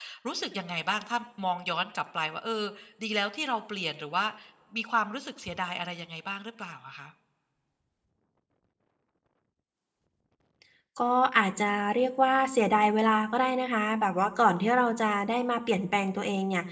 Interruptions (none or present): none